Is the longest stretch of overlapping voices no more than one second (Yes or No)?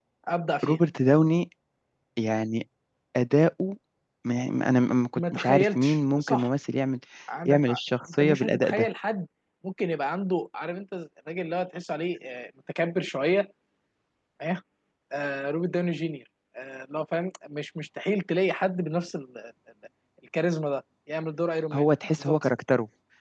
No